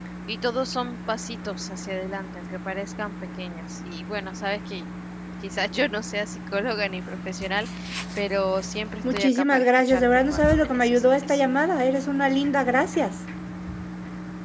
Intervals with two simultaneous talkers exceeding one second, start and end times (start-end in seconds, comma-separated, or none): 9.1-11.4